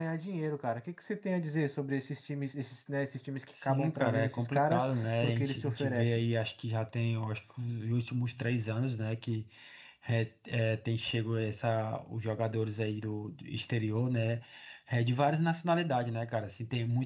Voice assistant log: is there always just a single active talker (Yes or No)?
No